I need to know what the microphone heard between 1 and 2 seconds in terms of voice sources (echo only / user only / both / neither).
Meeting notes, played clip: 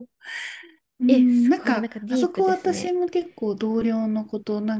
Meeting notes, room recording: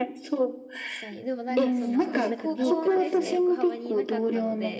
both